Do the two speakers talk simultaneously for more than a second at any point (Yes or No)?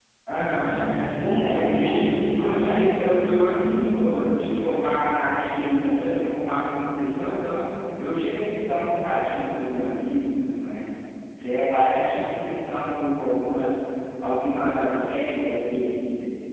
Yes